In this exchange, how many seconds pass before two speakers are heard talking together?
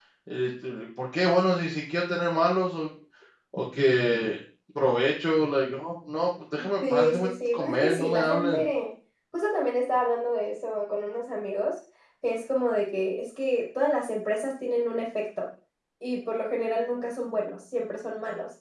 6.8 s

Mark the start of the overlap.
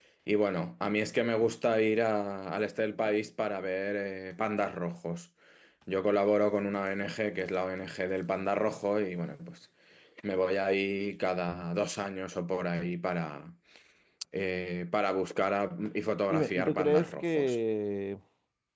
16.3 s

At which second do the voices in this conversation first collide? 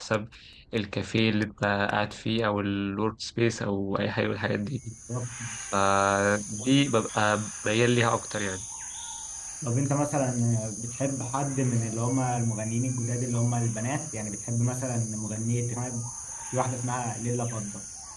none

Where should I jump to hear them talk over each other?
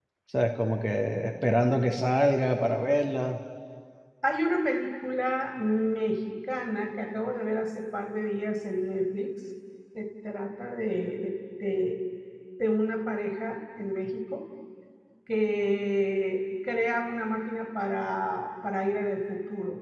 none

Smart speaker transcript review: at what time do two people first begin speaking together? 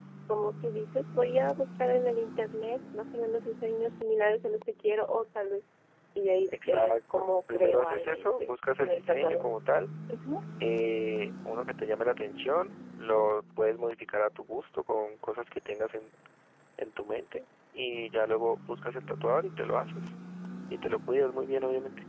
6.5 s

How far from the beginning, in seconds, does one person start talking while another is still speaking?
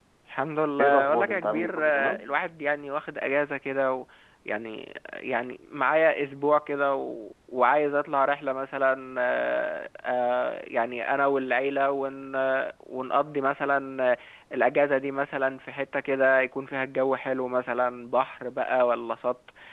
0.8 s

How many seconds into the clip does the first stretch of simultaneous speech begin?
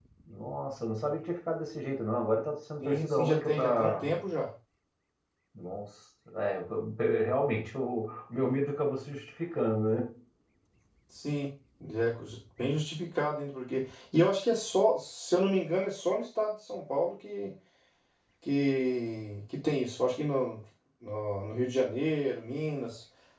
2.8 s

